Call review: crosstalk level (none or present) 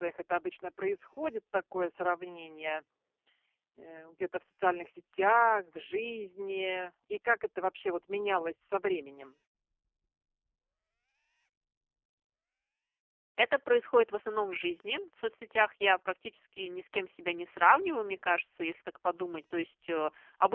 none